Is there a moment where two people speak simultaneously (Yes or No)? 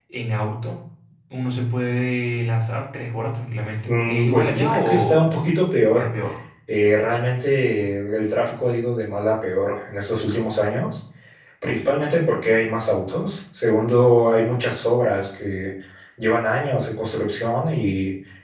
Yes